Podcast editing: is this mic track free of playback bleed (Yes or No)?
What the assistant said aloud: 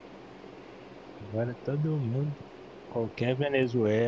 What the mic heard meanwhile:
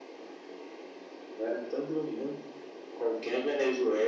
No